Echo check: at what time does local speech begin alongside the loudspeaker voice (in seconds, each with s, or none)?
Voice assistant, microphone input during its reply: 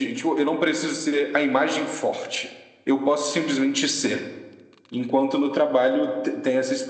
none